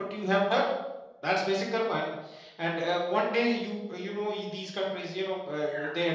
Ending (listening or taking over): listening